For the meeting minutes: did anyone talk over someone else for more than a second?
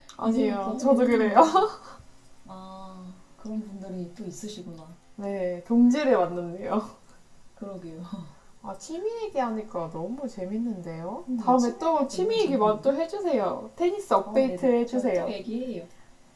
Yes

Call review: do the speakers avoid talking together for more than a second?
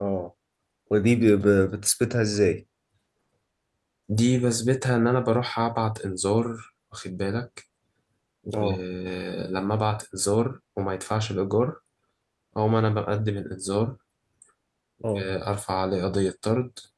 Yes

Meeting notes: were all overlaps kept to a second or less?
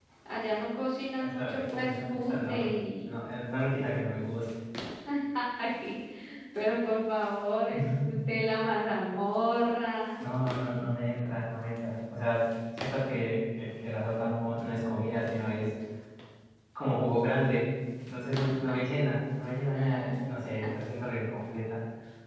No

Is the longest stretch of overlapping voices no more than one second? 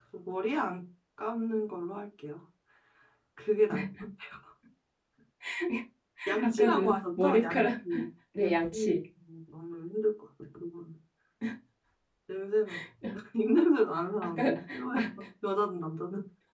No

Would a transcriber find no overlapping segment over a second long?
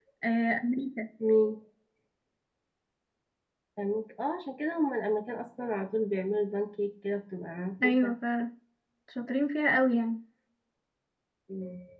Yes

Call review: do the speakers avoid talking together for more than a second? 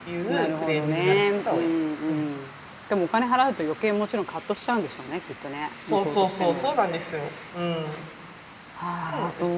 No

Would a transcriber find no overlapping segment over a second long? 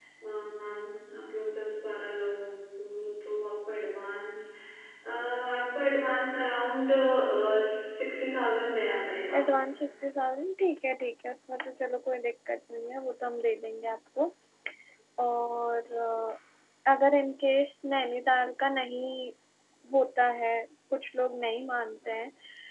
Yes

